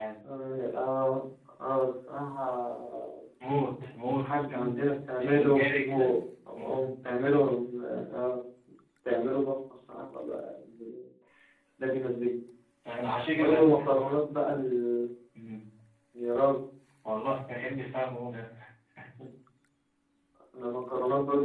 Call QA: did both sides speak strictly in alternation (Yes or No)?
No